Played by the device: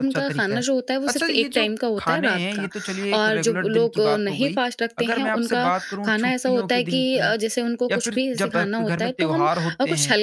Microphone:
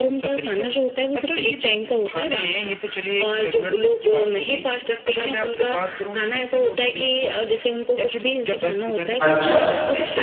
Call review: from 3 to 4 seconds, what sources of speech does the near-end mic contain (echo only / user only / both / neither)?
echo only